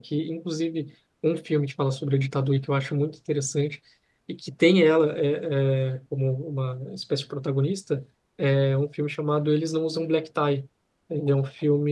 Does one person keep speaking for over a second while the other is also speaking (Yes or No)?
No